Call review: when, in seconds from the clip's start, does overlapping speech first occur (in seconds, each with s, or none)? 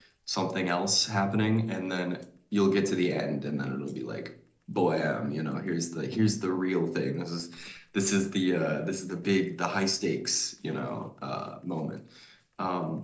none